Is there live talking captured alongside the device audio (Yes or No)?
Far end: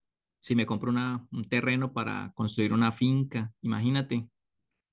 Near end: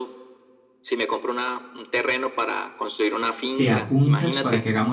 Yes